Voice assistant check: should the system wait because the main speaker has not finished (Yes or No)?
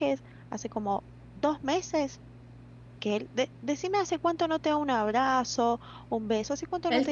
No